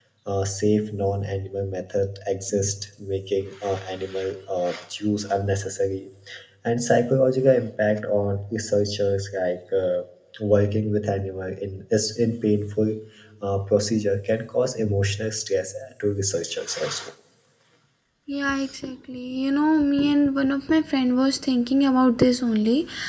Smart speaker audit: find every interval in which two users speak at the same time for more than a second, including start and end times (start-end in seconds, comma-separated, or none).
none